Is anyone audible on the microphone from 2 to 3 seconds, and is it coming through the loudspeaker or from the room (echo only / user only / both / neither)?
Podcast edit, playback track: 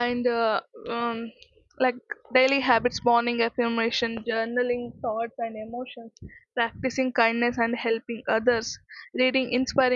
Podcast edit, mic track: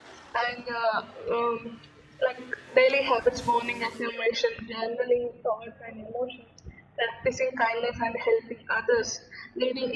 echo only